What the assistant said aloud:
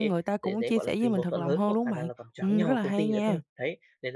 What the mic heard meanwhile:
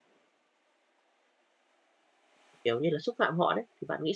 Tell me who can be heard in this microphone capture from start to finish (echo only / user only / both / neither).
user only